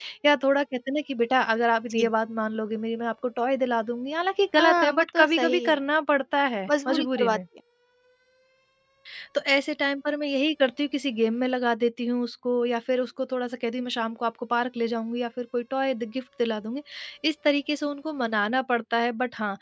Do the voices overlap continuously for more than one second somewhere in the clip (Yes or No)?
Yes